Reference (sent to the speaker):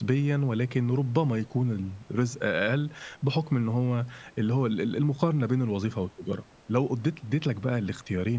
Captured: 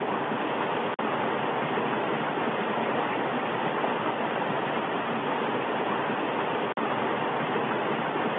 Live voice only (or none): none